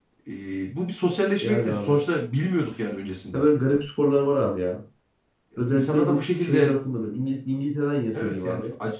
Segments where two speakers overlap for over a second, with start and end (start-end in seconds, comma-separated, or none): 5.6-6.8